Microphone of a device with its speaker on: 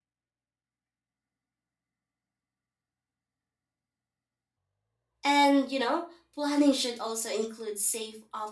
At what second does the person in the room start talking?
5.2 s

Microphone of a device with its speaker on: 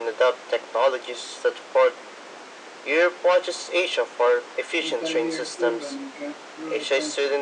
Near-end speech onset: 4.8 s

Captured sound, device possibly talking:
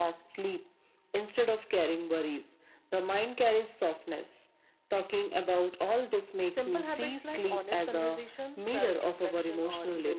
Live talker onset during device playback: 6.5 s

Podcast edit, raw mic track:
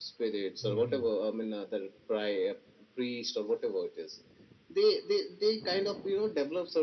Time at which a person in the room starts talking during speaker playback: 0.6 s

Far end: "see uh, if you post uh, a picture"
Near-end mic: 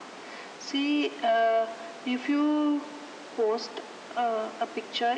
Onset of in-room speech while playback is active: none

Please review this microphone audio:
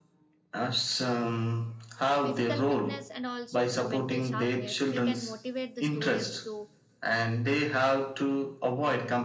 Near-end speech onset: 2.2 s

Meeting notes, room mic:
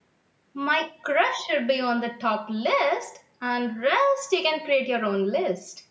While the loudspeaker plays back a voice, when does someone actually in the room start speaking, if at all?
0.5 s

